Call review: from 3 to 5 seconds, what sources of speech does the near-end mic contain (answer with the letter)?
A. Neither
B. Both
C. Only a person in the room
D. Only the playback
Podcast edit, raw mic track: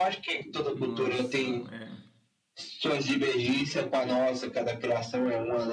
D